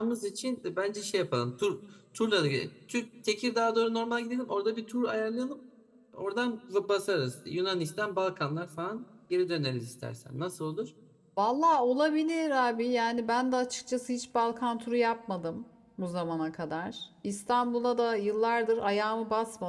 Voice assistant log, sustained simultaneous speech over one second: none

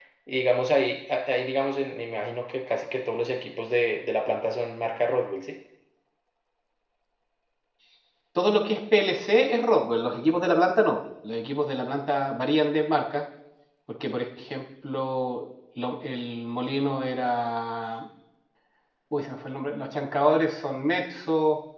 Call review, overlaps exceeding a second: none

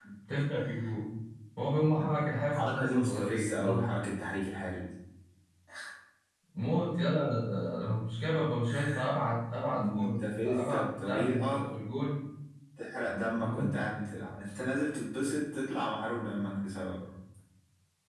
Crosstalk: present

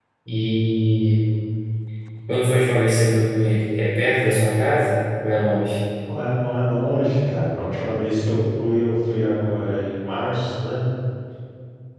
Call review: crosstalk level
none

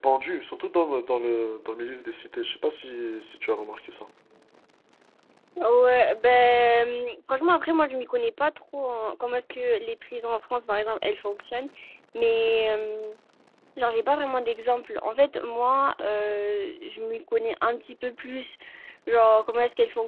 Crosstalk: none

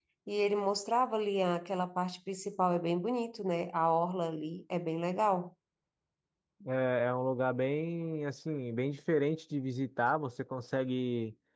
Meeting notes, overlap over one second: none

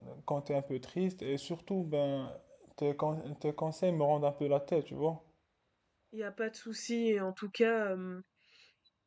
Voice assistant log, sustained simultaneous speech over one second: none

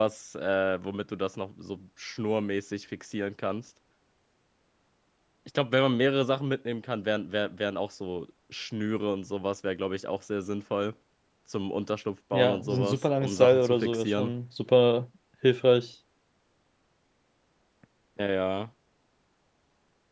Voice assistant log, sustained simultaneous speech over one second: present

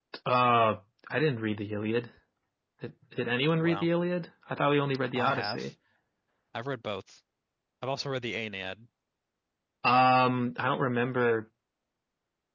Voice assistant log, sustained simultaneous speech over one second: none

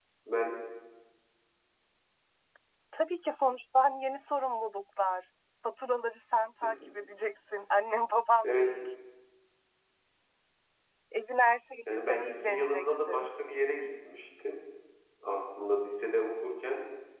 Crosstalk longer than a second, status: present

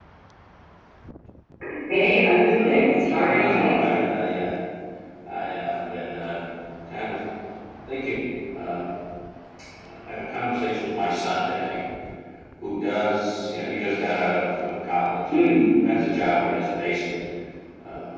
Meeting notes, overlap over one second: present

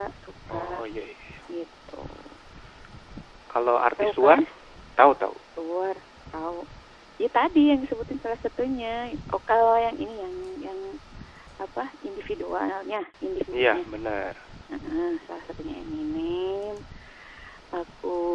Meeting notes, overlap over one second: none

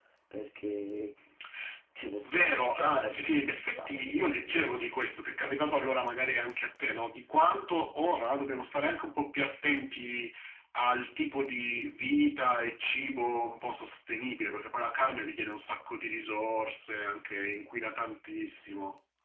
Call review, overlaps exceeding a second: present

